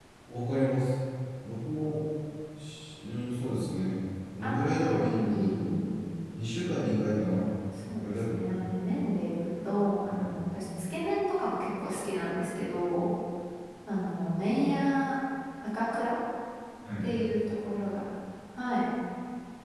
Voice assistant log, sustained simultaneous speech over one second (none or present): present